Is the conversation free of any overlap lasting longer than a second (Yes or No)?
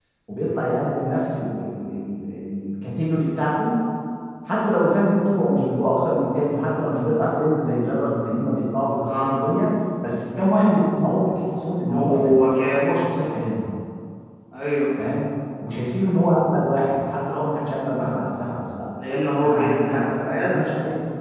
No